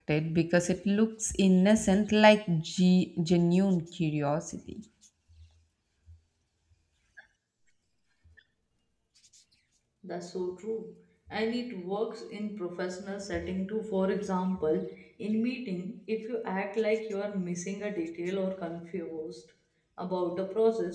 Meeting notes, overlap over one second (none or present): none